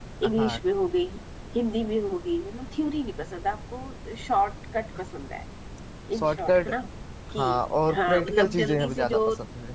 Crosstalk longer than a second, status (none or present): present